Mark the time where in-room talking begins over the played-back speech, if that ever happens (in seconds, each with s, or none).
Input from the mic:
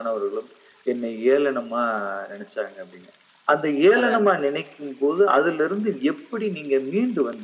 4.0 s